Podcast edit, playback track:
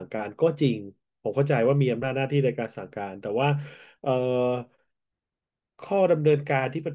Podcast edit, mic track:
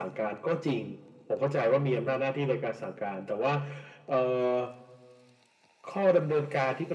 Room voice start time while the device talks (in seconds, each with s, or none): none